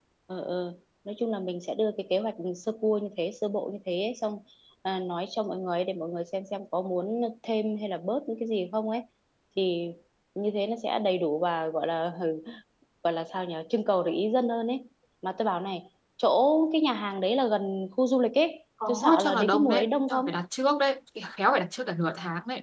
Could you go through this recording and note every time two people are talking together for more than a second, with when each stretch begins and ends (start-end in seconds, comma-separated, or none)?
18.9-20.3